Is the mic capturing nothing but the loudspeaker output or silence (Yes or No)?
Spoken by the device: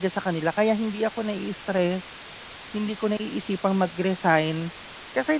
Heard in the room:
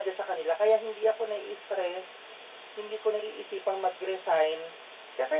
Yes